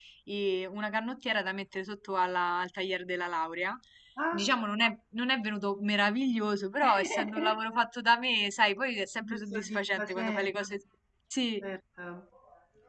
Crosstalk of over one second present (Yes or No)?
Yes